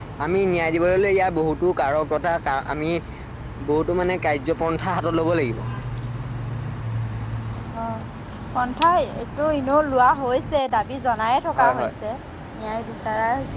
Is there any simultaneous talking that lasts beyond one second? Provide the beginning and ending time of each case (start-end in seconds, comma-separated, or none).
none